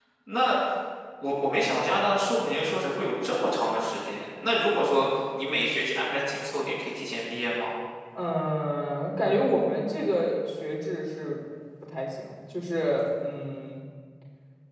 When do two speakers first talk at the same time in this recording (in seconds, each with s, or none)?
none